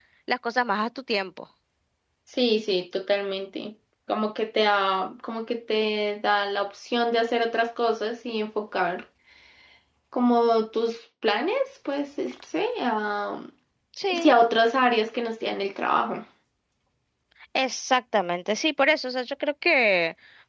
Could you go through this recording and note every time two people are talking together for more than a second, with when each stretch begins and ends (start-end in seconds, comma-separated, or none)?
none